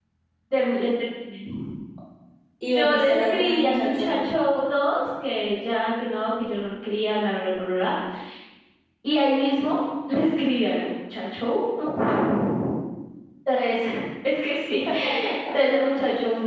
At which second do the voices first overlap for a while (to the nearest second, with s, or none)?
3 s